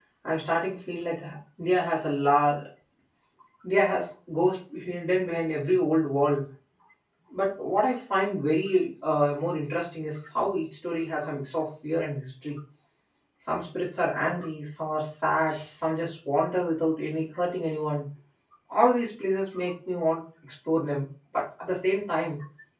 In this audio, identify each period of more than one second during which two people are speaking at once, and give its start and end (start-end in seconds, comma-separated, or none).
none